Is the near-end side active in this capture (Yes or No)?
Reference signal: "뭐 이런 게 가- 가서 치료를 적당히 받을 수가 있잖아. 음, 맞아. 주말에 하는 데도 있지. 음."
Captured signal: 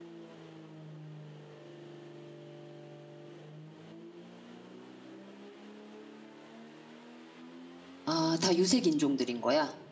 Yes